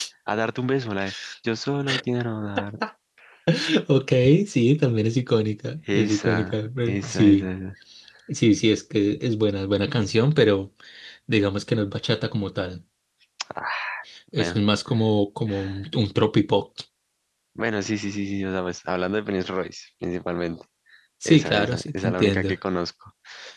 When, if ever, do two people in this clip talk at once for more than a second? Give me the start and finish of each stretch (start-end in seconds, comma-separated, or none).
5.9-7.5, 21.2-22.6